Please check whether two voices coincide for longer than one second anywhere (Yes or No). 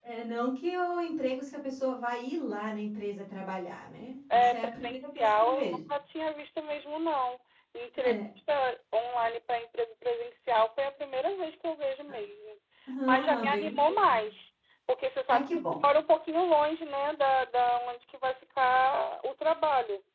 Yes